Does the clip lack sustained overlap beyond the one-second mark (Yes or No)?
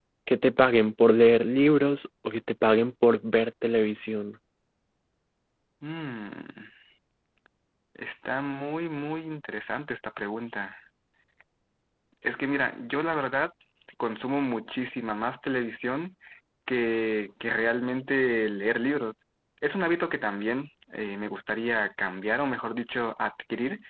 Yes